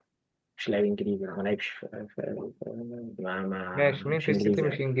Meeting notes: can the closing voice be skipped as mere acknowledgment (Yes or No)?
No